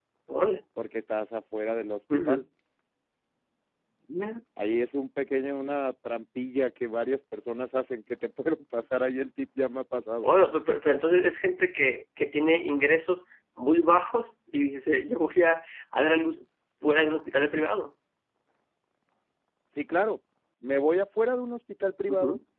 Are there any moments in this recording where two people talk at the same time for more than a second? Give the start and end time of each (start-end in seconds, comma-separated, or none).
none